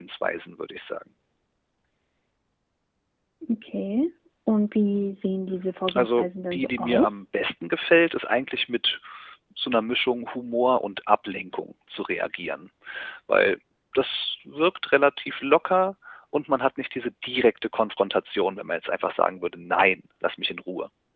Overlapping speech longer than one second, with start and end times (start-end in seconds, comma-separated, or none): 5.9-7.1